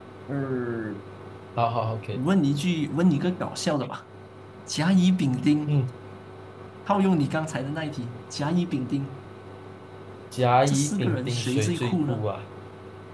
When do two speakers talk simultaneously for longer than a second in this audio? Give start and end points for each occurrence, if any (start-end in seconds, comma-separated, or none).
10.7-12.3